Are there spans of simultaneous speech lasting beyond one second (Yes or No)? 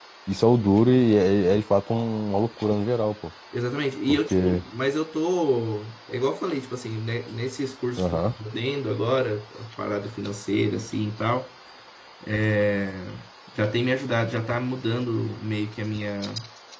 No